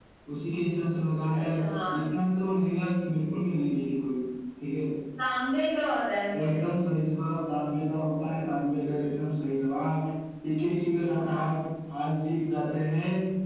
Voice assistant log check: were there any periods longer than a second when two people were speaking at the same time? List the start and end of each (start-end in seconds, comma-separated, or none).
none